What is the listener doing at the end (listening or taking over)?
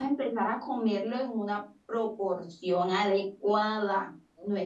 listening